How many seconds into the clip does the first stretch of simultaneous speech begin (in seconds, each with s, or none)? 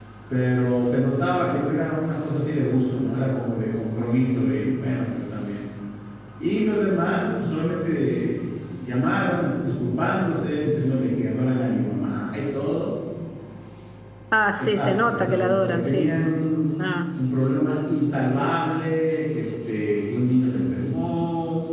14.6 s